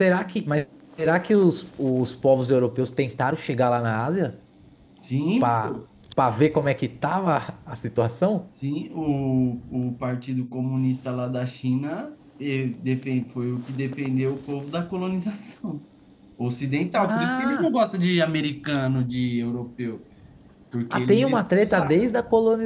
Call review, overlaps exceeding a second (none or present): present